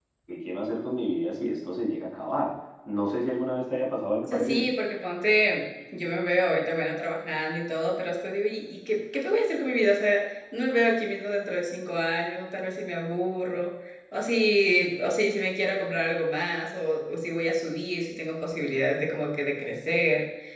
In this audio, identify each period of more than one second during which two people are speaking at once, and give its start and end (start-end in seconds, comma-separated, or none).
none